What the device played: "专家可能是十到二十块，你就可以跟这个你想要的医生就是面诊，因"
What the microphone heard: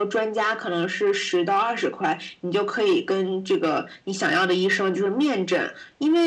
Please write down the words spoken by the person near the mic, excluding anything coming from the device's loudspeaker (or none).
none